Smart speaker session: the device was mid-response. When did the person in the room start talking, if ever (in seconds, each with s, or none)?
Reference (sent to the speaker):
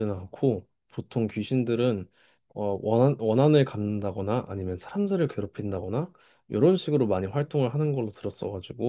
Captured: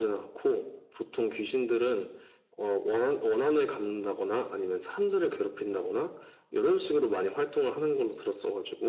none